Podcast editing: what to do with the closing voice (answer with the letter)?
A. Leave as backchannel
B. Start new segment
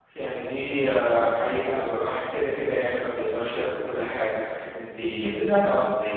A